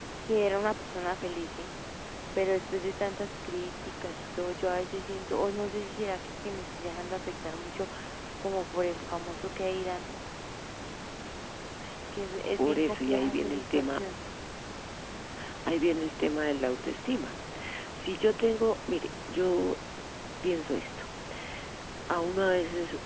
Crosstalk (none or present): present